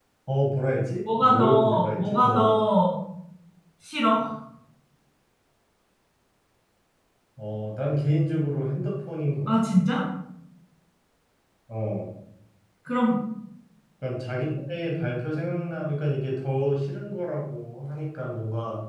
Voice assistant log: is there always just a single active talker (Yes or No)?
No